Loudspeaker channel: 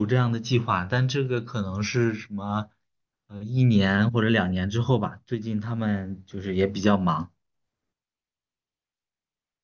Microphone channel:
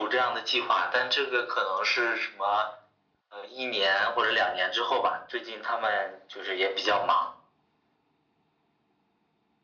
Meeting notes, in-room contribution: none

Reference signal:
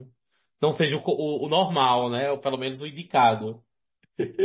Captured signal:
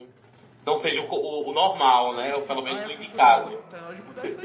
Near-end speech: present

